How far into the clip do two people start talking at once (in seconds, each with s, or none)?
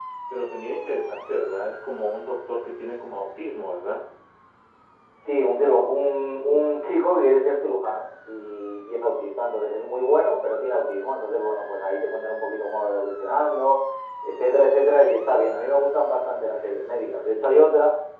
none